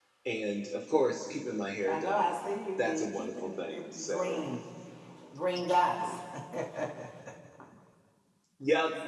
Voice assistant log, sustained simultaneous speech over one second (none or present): present